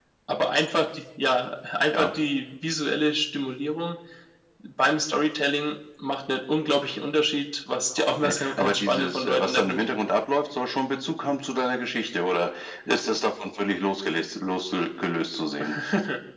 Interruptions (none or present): present